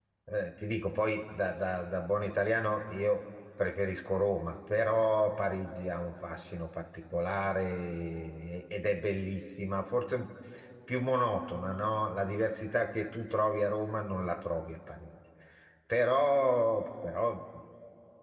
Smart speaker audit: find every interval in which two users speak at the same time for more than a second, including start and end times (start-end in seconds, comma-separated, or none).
none